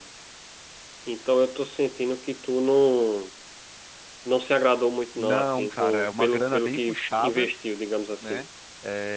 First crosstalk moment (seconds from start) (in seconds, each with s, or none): 5.2 s